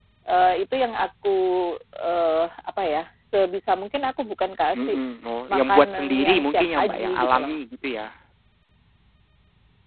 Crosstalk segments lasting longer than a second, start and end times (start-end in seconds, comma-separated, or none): 5.5-7.6